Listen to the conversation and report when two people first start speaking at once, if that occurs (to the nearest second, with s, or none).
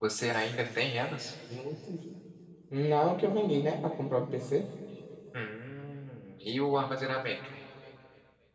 none